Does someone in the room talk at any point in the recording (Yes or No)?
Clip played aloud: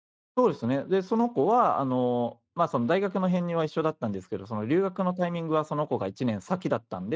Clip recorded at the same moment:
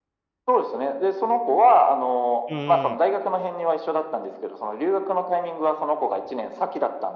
Yes